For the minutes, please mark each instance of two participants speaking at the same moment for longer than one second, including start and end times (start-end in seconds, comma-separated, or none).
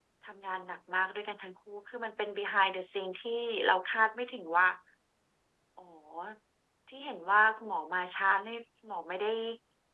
none